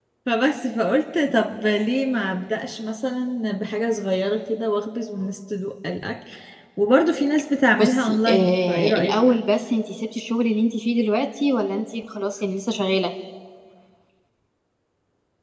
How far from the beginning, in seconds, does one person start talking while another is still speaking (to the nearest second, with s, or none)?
8 s